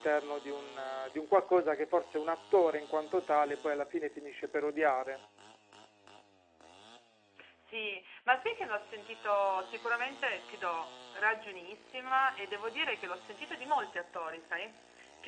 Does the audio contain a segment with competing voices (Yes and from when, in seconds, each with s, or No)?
No